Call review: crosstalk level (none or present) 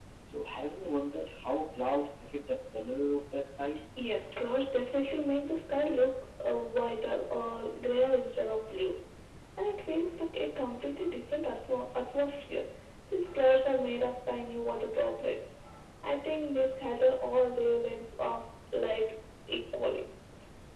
none